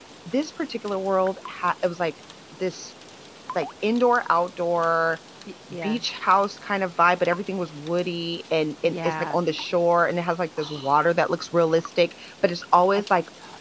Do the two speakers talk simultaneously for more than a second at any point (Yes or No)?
No